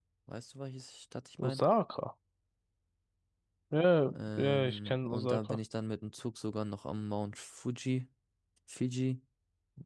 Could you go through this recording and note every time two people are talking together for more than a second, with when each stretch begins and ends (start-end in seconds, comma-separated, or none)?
4.1-5.6